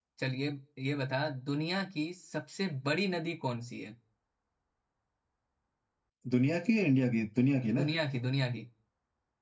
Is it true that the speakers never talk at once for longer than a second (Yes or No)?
Yes